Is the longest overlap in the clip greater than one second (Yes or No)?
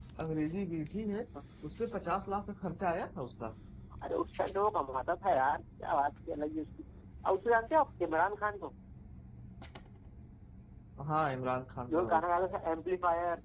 No